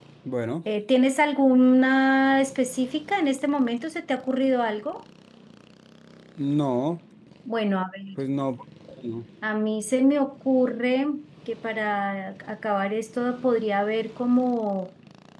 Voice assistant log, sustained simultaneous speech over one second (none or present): none